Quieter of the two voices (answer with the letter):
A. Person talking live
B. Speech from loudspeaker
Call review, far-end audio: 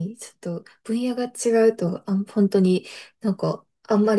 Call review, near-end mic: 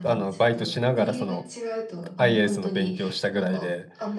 B